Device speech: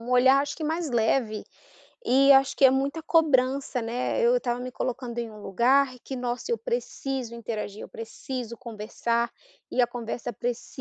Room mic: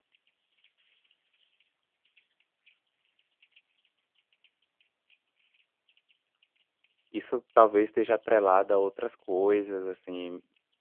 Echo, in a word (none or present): none